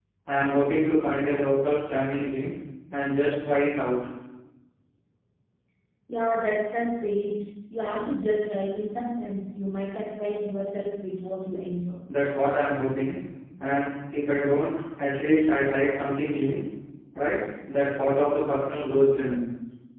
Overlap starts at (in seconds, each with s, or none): none